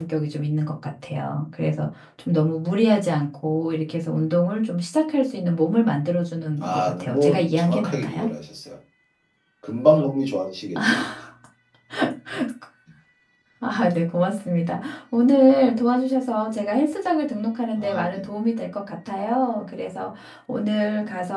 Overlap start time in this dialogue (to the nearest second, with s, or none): 7 s